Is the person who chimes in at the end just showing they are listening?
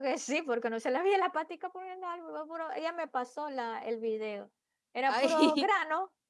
Yes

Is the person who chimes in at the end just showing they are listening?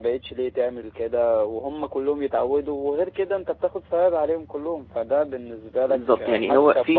No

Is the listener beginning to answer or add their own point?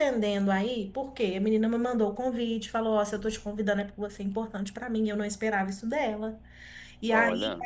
No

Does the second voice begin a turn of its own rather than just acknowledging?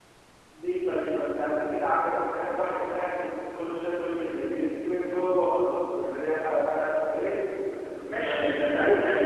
Yes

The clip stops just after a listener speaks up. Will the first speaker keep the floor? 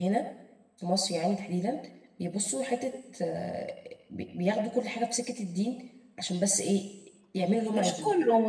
No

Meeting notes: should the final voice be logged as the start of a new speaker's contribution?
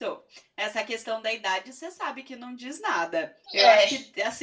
No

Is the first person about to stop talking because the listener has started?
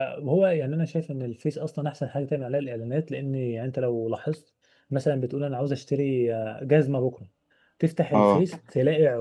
No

